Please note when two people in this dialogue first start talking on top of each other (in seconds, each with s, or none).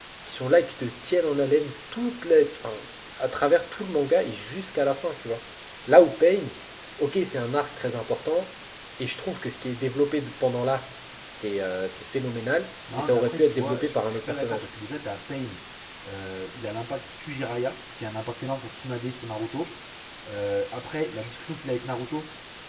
12.9 s